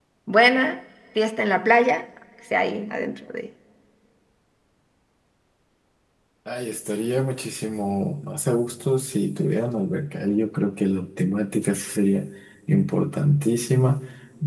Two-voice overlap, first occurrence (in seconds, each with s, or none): none